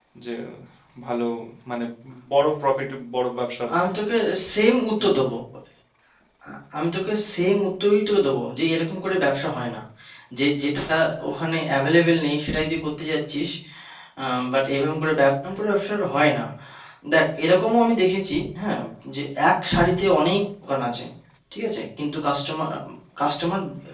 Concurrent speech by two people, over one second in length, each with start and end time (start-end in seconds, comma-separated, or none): none